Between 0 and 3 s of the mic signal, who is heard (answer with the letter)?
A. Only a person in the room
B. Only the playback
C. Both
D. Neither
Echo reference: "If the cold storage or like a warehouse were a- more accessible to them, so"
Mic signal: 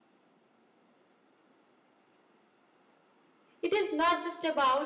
D